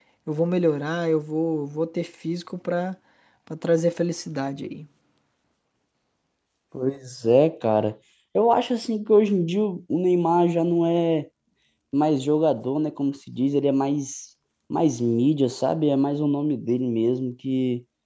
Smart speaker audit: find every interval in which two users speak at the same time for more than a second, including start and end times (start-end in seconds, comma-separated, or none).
none